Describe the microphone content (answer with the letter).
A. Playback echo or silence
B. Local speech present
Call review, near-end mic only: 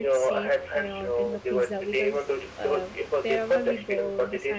B